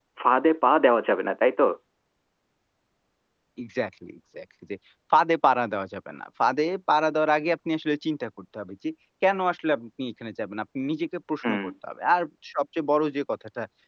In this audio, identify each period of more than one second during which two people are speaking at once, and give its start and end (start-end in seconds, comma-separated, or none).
none